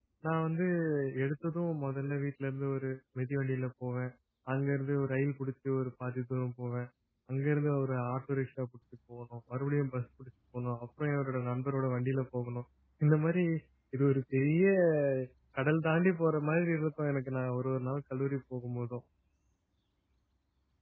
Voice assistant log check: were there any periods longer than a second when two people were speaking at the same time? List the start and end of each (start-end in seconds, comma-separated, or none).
none